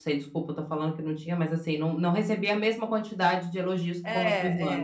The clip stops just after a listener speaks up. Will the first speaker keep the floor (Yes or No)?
No